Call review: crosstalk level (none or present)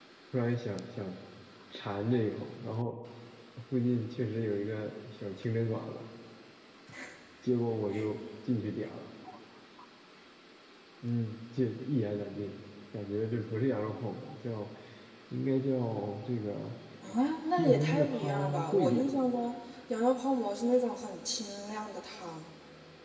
present